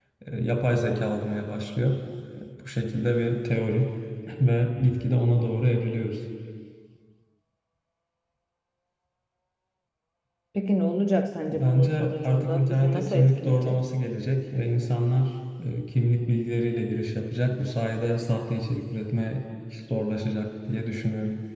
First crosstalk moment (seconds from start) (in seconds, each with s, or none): 11.5 s